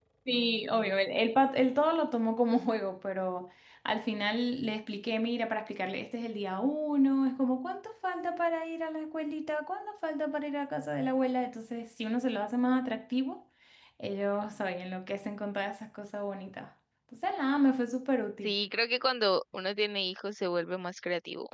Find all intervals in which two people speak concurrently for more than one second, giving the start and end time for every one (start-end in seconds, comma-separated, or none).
none